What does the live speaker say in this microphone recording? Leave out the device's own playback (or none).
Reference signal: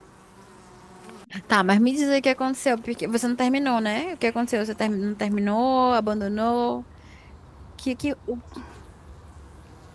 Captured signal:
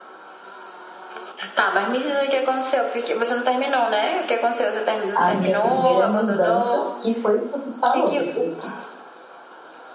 a minha primeira mudança, que foi o que tu falou, Petras, né?